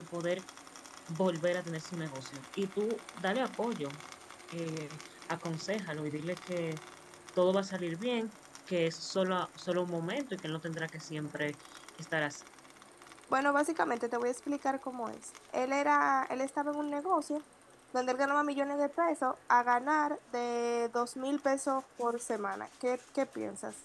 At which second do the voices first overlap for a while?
none

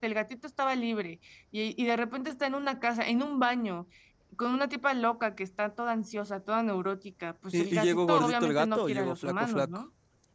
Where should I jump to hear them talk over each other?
7.5 s

